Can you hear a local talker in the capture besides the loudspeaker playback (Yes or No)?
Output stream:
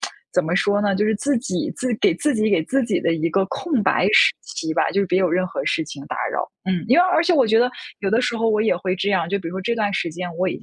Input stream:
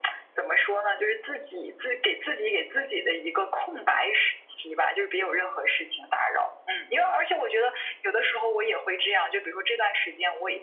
No